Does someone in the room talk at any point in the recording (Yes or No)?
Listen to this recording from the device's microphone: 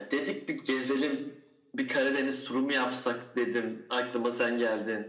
No